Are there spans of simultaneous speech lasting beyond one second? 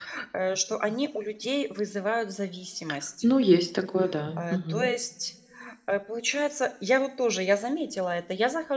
No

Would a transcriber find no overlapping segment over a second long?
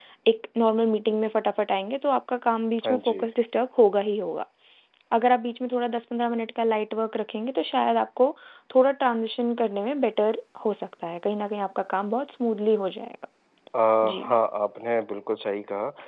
Yes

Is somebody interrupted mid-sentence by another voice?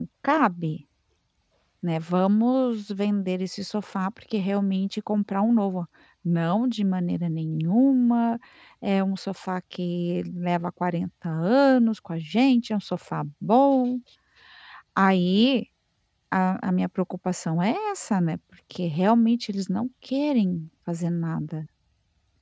No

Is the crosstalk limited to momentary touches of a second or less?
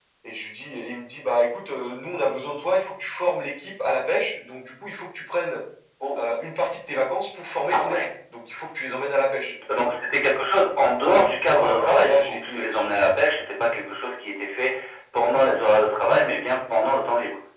No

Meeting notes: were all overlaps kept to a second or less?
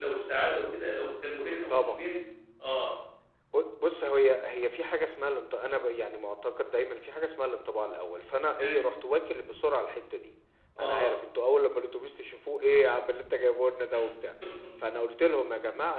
Yes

